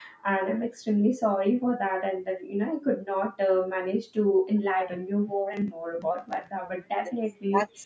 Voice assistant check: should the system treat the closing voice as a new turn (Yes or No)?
Yes